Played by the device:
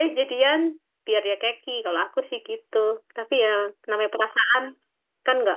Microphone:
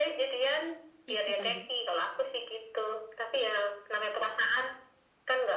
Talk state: both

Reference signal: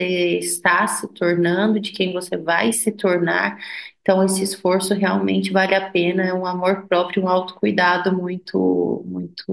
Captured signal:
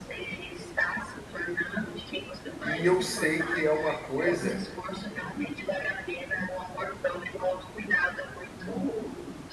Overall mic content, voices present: both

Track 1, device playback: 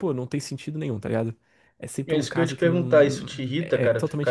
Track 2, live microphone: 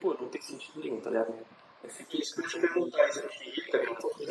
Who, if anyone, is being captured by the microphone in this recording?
echo only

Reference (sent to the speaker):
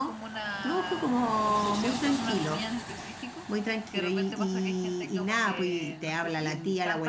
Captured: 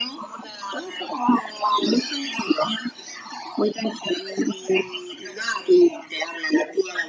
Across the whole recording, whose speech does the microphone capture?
echo only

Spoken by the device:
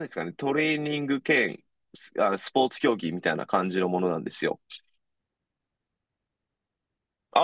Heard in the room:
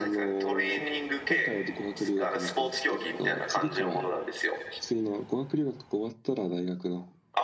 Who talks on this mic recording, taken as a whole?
both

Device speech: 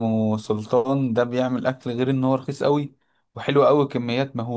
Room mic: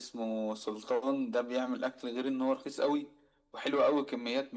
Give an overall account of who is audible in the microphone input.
echo only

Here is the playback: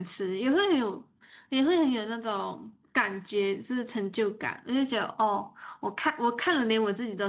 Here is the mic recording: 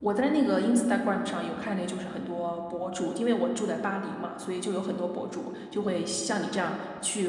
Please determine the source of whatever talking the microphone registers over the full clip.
user only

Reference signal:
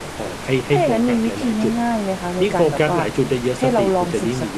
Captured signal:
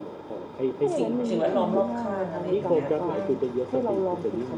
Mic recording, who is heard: both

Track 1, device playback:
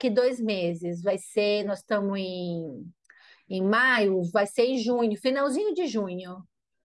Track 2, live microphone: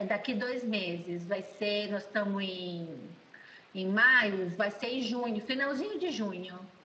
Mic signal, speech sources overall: echo only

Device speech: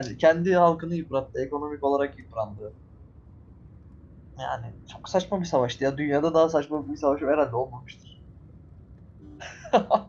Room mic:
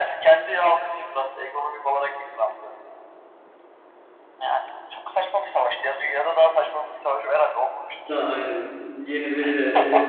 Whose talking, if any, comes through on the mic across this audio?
both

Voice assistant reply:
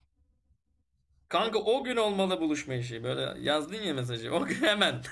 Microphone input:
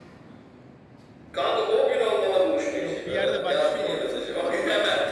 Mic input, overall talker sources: both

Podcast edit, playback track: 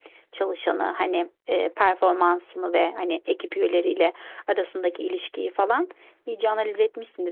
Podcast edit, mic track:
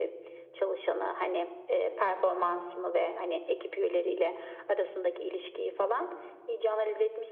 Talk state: echo only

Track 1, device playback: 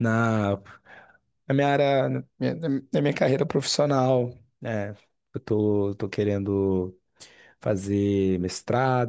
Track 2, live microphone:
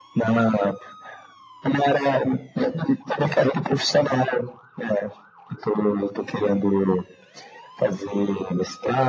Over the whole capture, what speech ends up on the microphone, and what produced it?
echo only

